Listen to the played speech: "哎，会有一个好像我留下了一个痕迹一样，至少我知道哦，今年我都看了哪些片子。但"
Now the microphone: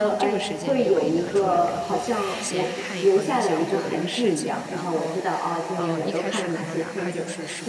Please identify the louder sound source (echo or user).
echo